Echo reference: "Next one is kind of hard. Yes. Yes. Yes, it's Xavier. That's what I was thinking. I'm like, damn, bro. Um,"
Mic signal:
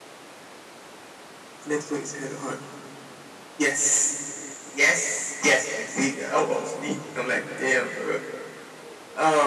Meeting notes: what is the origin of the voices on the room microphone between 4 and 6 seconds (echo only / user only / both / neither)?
echo only